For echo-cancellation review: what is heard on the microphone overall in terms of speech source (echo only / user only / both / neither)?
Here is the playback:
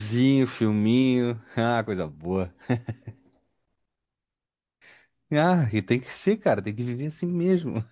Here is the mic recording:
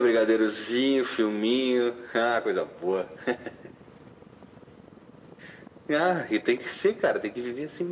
echo only